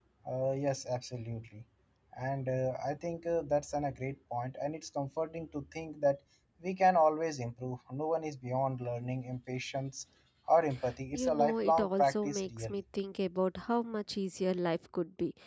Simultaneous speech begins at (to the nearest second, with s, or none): 11 s